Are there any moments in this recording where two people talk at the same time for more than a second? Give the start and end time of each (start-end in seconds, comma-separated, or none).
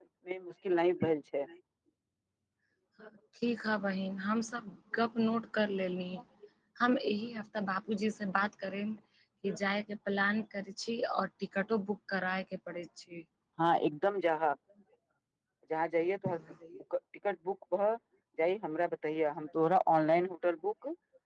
none